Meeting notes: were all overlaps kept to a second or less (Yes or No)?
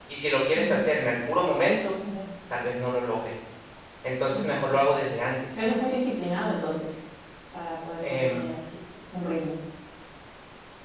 Yes